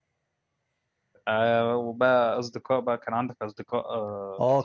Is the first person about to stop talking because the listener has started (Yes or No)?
Yes